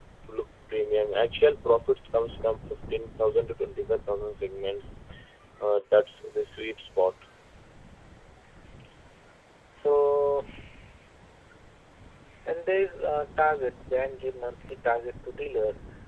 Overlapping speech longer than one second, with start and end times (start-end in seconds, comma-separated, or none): none